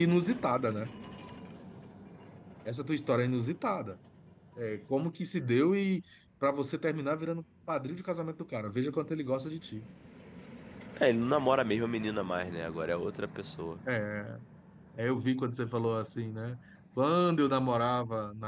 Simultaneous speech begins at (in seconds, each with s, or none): none